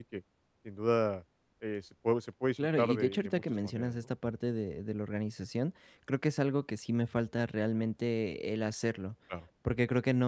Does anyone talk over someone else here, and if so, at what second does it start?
2.6 s

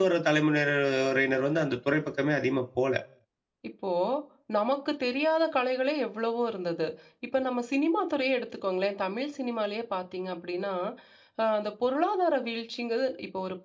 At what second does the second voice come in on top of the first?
none

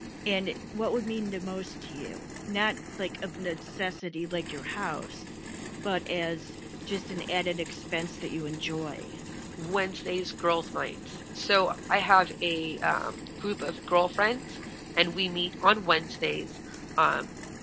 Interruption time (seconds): none

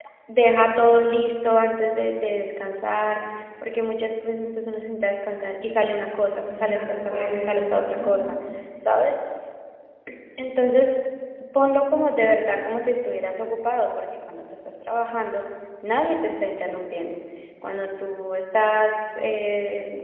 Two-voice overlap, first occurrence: 6.5 s

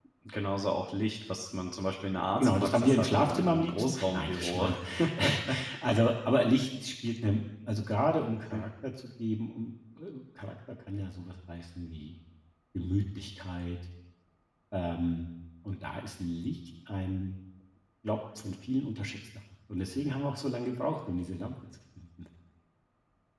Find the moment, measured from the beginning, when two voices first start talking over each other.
2.4 s

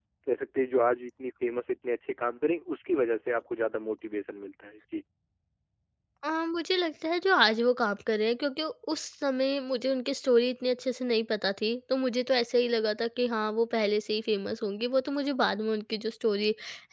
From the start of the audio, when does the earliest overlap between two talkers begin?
none

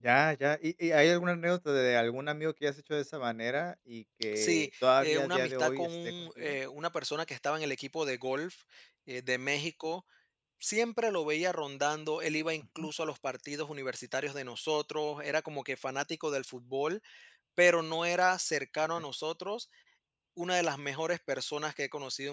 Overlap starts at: 4.3 s

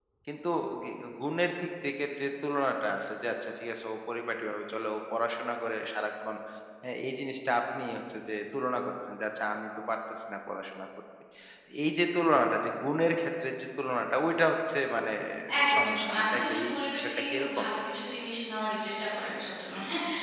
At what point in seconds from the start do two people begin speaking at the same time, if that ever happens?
15.8 s

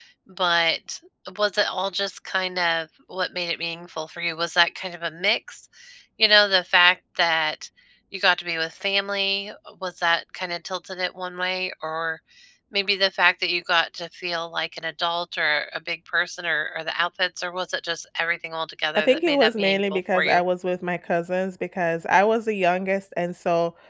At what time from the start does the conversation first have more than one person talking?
19.0 s

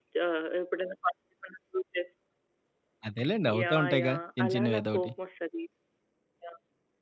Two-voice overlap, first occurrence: 3.6 s

